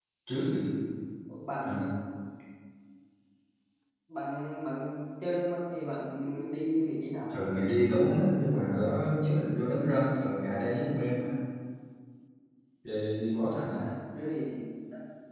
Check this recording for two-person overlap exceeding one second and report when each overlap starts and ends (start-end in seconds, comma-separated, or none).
none